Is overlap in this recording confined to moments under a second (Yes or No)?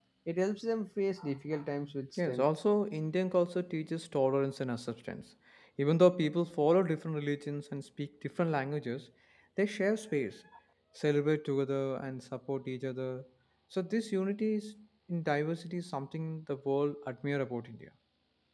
Yes